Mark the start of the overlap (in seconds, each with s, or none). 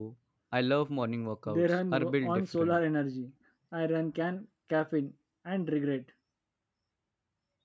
1.4 s